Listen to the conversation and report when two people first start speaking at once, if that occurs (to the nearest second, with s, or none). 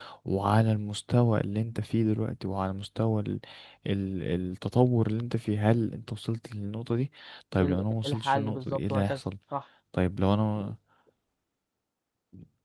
8 s